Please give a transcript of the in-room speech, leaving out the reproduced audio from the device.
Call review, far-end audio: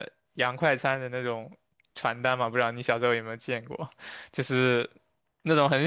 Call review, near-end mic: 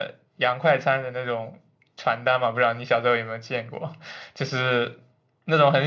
none

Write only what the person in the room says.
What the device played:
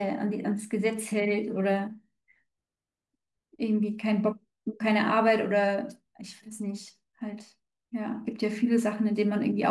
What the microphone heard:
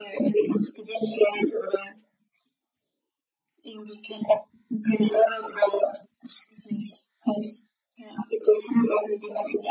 none

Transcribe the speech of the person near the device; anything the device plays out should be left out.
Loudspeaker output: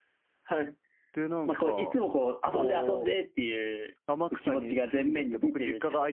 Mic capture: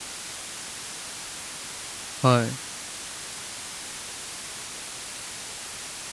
はい。うん

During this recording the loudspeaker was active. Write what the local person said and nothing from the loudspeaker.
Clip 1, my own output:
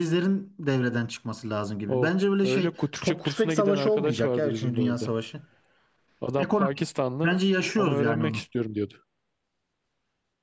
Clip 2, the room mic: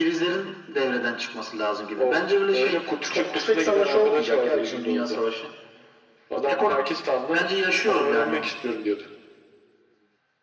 none

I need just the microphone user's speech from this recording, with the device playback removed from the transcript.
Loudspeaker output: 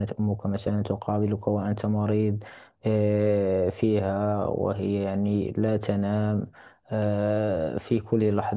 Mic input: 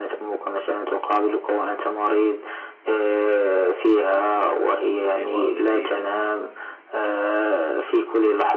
بوالديهم

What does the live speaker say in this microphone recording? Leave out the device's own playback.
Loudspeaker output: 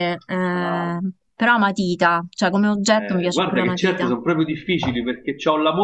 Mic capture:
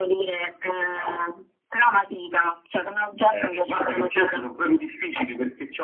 none

